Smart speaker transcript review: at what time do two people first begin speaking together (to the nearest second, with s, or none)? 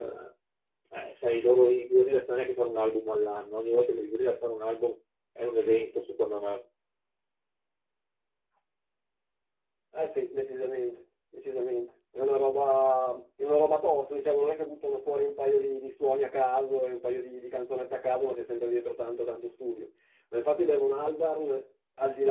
none